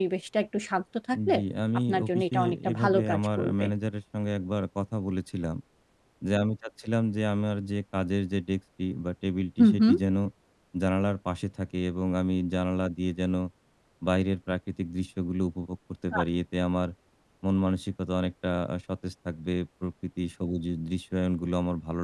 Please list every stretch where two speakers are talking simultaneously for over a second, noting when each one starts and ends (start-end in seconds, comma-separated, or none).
1.9-3.6